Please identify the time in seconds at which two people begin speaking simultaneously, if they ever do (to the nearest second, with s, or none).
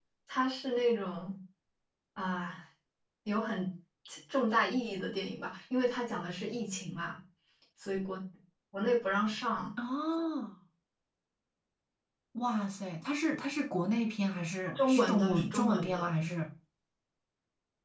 15 s